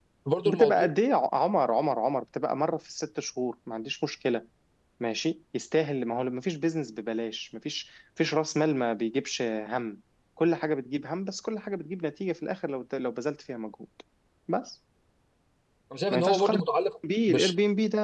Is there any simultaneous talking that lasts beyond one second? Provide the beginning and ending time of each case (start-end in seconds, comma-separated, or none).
none